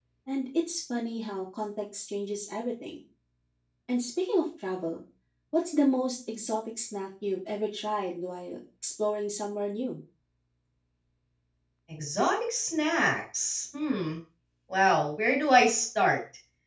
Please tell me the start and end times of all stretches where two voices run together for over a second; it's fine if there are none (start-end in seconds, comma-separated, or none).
none